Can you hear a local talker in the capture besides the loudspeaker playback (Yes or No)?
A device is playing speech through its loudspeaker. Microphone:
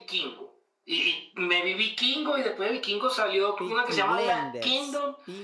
Yes